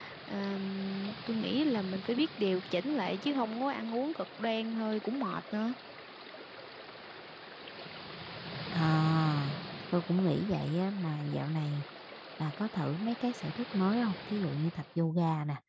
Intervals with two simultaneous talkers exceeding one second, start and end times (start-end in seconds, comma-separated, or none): none